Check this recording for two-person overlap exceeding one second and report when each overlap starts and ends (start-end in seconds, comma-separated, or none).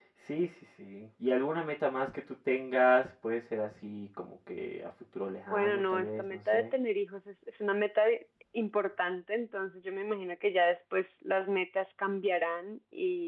5.5-6.7